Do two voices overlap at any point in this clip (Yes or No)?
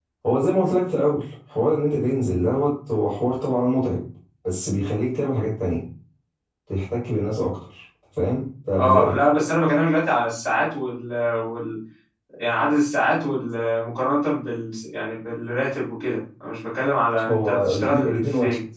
Yes